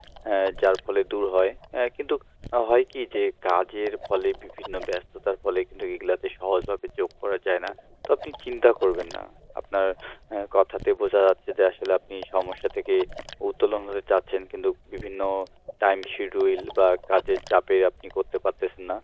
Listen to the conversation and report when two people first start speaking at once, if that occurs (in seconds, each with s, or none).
none